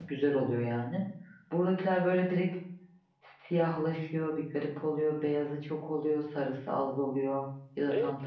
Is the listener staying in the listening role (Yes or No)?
No